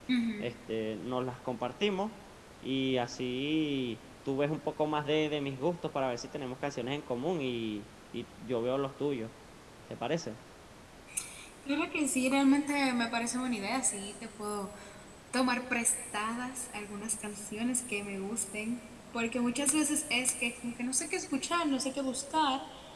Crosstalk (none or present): none